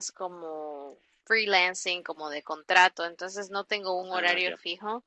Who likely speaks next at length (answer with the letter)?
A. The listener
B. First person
B